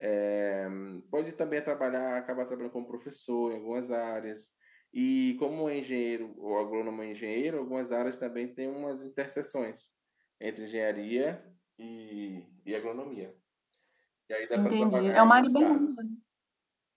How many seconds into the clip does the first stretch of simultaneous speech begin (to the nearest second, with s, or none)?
15 s